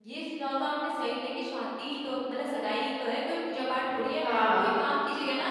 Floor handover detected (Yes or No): No